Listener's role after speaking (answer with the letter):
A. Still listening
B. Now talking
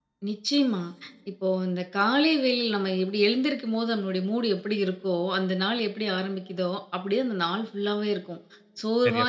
A